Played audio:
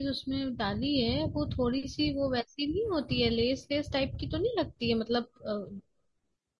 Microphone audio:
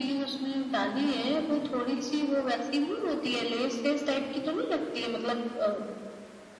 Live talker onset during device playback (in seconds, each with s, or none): none